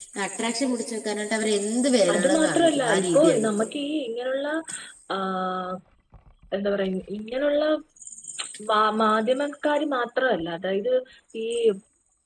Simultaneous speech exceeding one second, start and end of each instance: 2.1-3.7

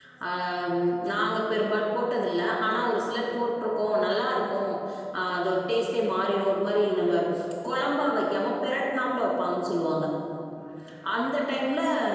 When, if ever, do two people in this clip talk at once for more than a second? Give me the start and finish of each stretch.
none

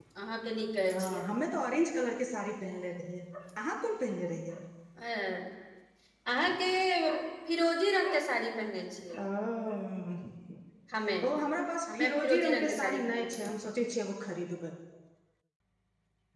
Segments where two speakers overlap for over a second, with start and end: 11.9-13.5

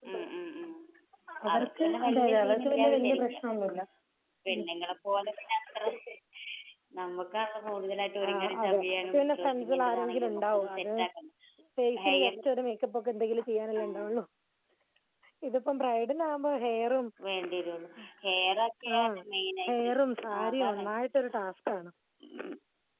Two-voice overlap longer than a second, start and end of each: 1.5-3.4, 8.3-10.9

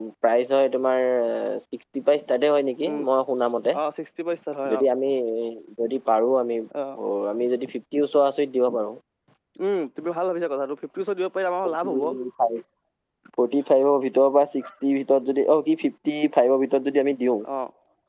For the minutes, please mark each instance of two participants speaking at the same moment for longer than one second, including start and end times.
none

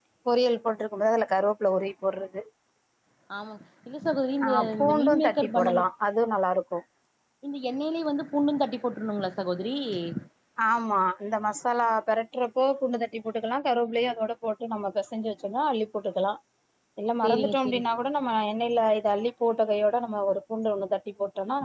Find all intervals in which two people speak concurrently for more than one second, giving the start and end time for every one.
4.4-5.9

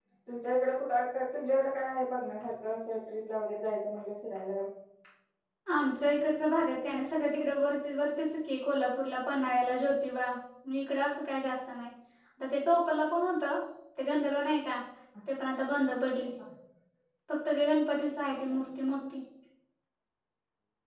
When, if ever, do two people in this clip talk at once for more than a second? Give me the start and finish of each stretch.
none

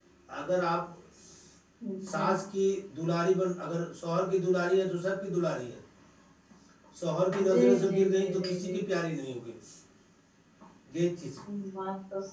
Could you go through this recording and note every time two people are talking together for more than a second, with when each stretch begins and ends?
7.4-8.8

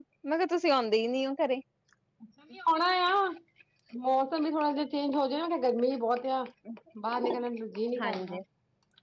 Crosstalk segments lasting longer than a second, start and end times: none

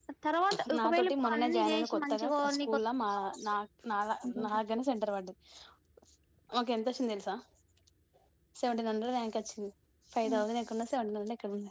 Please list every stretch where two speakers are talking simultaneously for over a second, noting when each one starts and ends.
0.8-2.8

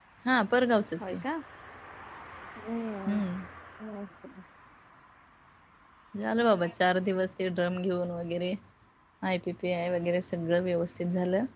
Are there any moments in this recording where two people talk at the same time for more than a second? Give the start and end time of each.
none

